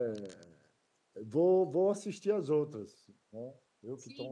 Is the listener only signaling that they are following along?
No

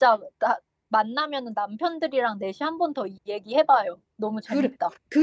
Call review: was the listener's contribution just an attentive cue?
No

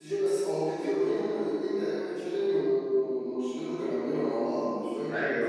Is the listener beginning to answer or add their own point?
Yes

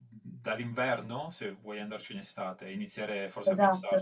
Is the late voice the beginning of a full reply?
Yes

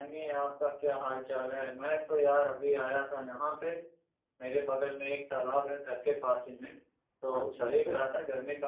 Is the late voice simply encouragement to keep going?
Yes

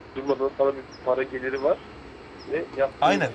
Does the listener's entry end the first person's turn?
Yes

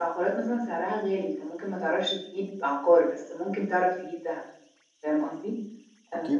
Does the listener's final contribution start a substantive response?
No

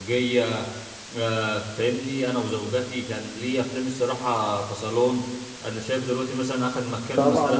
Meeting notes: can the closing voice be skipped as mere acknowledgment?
No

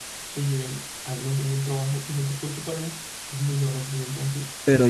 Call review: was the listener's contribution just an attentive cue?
No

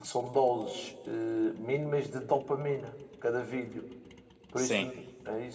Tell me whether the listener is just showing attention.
Yes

